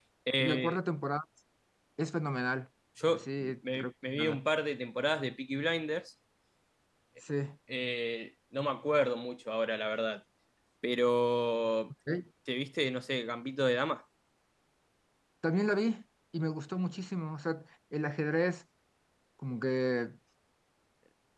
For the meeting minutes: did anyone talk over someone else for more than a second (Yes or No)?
Yes